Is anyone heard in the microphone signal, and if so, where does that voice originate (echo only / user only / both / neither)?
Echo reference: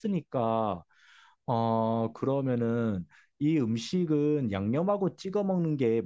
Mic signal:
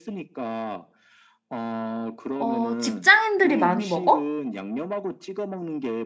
both